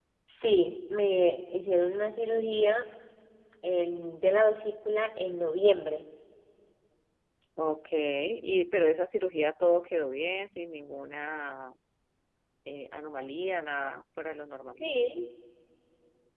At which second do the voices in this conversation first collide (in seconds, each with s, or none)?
none